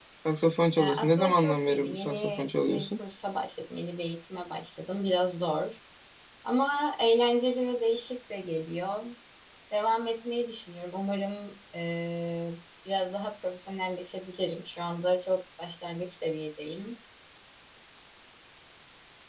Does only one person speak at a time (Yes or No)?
No